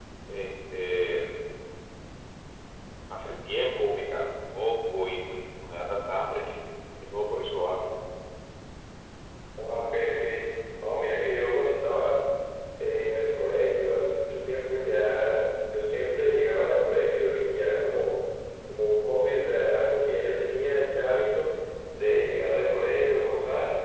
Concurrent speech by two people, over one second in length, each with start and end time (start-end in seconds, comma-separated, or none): none